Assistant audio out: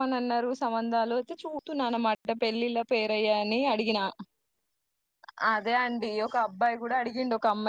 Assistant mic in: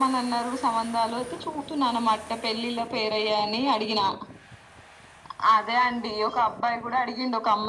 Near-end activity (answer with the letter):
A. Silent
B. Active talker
A